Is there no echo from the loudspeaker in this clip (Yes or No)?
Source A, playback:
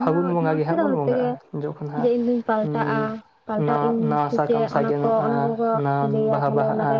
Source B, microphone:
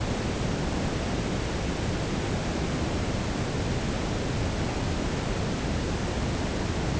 Yes